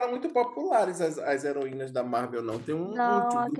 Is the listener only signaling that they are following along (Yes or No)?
No